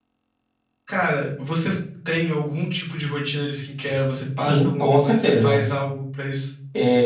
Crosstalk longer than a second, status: present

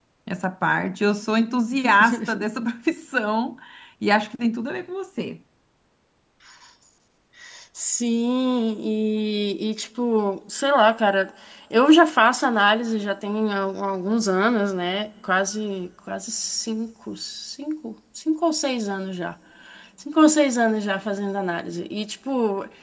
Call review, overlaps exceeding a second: none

